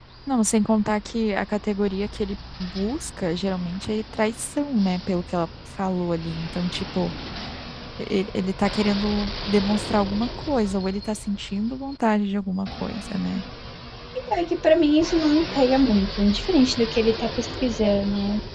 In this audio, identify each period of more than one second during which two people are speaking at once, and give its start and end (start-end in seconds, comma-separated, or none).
none